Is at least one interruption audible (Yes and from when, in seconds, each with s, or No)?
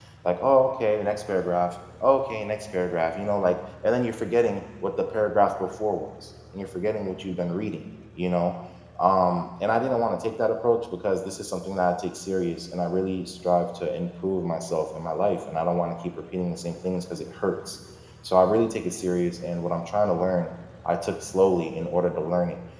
No